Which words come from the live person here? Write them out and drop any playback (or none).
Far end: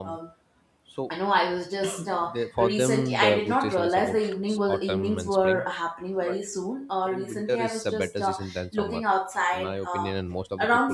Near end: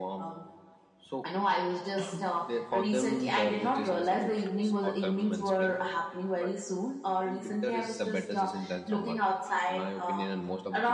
none